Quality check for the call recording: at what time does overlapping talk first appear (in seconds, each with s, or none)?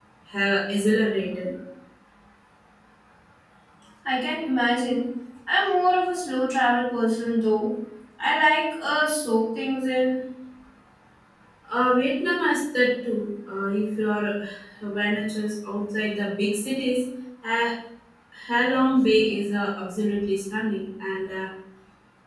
none